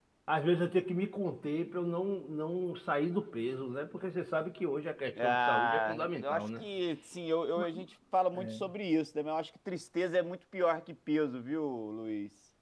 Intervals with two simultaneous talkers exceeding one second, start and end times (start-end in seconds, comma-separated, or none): 5.2-6.6